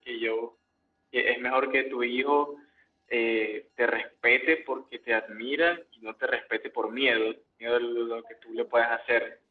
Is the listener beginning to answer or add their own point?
No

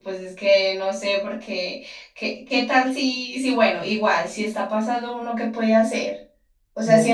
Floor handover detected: No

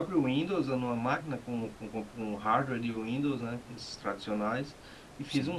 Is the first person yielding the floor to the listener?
No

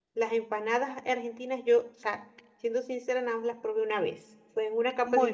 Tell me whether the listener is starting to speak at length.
No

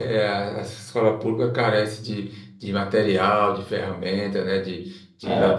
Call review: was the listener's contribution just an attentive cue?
Yes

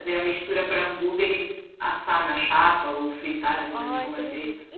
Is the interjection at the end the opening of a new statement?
Yes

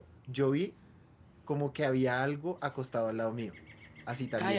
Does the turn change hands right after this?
No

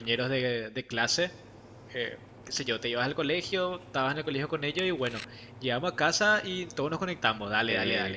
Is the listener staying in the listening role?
Yes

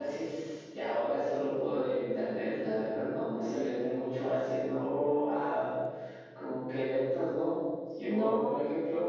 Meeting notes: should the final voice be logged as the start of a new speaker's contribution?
No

